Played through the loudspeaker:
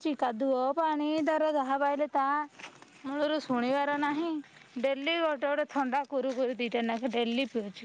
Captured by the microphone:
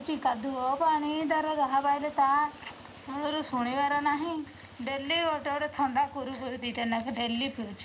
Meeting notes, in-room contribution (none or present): none